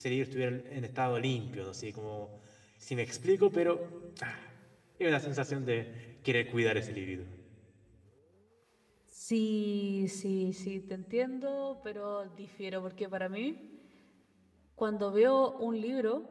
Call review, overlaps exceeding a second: none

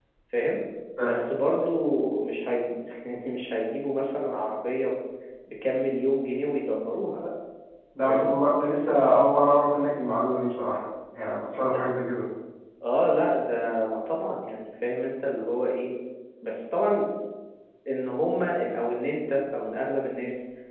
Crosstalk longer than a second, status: none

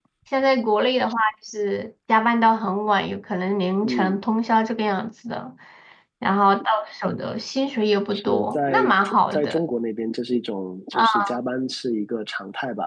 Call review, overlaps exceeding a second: present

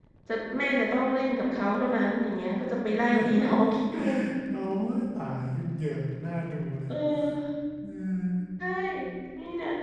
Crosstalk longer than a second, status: none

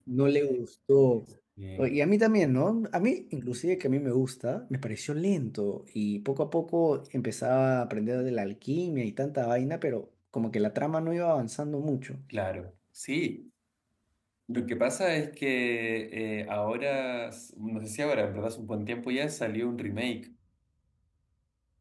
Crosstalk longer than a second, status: none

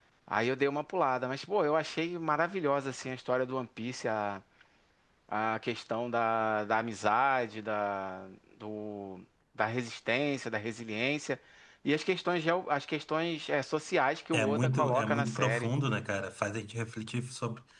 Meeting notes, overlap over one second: present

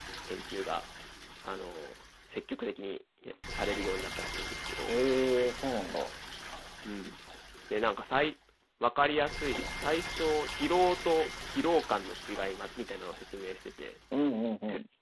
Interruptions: none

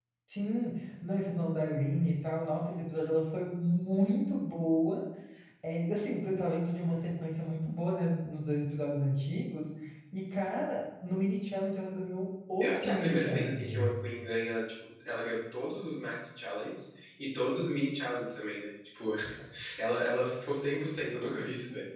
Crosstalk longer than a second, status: present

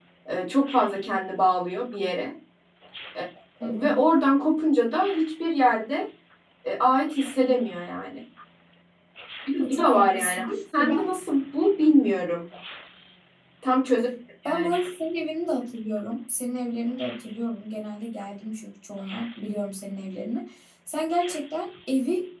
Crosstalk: present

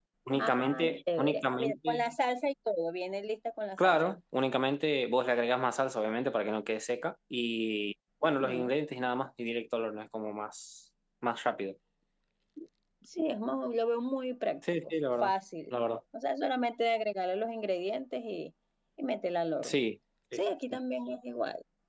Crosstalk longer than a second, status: present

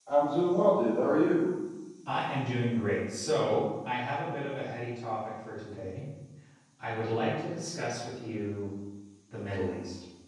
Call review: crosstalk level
none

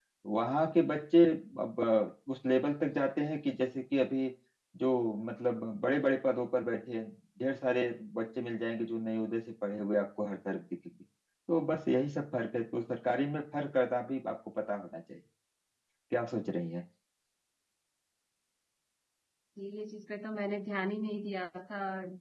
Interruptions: none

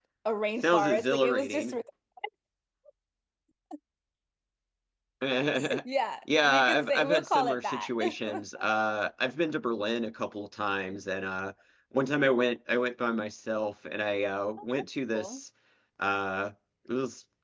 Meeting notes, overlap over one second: present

